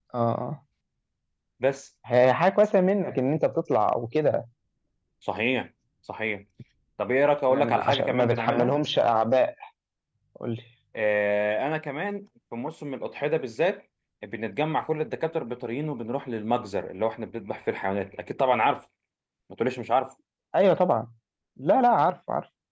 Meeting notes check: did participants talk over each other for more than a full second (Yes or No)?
Yes